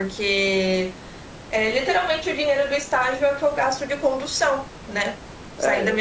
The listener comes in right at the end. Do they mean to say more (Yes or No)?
No